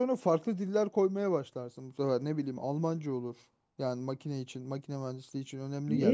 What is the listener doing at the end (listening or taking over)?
taking over